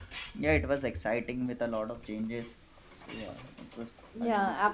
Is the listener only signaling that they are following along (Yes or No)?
No